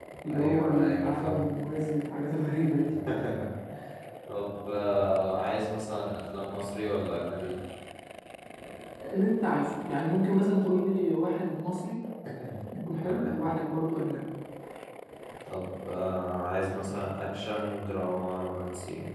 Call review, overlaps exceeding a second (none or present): present